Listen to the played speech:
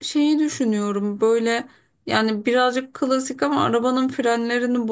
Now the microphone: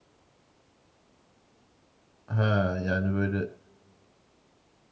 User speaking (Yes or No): Yes